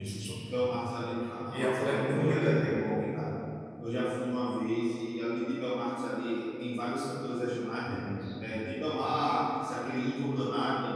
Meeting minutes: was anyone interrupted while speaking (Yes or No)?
Yes